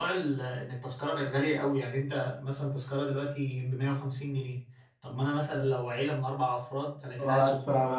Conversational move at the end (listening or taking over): taking over